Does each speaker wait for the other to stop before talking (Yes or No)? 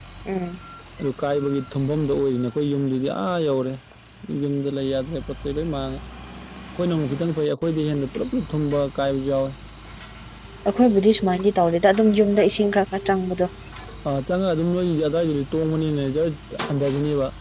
Yes